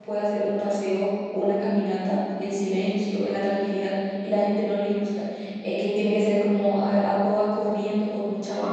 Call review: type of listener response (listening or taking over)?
taking over